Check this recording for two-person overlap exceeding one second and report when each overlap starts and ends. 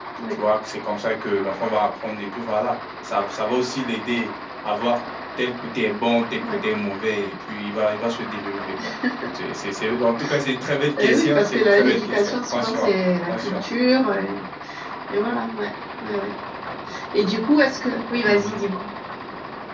11.0-13.6

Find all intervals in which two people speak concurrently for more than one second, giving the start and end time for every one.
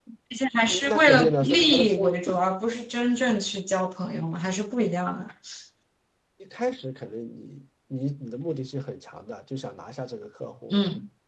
0.7-2.2

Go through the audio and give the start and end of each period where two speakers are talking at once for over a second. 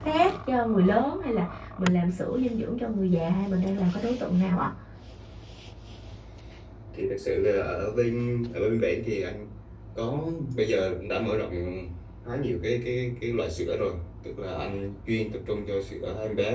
none

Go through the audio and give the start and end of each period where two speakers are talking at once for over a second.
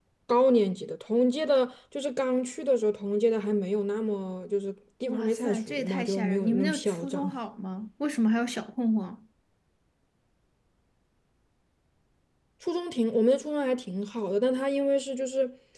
5.1-7.3

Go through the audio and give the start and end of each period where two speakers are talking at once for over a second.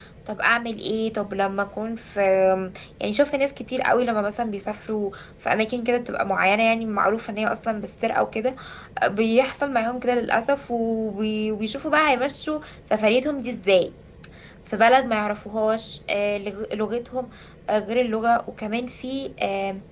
none

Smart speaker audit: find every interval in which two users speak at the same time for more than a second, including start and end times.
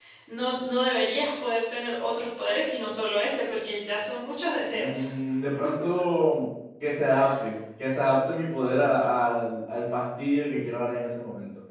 none

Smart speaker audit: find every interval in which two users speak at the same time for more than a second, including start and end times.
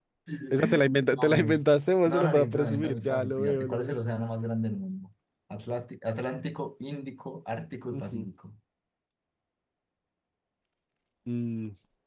2.1-4.0

